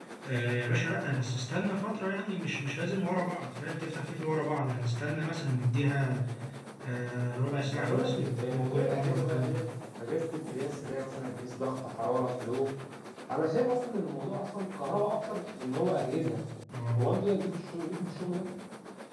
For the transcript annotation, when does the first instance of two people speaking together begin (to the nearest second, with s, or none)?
7 s